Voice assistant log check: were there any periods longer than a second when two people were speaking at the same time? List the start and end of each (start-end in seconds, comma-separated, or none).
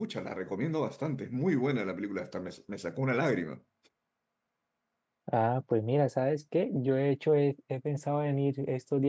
none